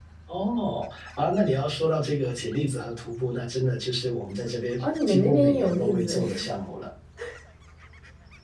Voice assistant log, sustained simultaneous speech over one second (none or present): present